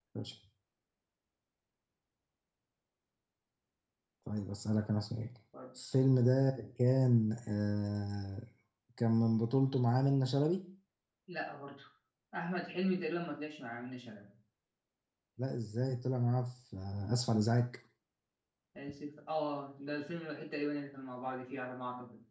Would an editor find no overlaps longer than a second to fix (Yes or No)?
Yes